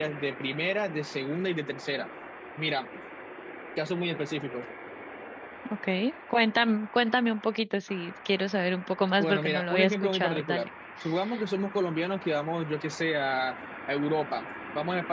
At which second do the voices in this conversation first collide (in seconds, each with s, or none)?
9.2 s